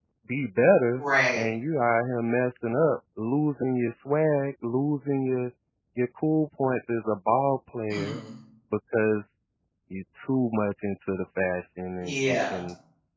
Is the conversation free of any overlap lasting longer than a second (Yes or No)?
Yes